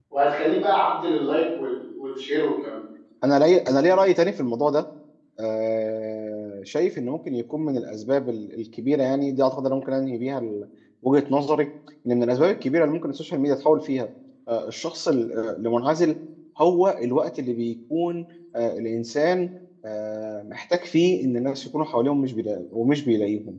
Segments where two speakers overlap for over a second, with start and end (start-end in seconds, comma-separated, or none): none